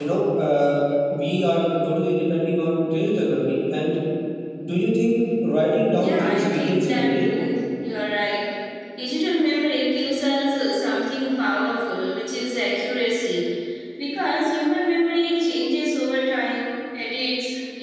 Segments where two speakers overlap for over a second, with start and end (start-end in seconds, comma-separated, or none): 5.9-7.2